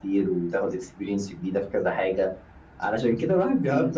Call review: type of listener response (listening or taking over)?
listening